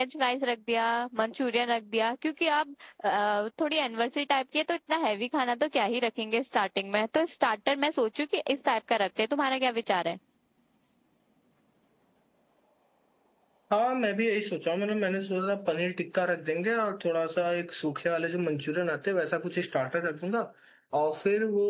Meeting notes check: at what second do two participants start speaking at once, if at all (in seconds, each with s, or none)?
none